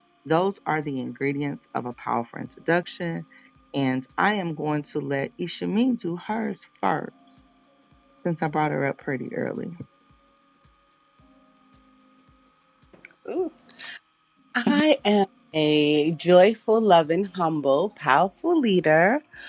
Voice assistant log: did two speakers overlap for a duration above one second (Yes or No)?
No